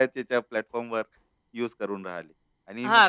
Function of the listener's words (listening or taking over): taking over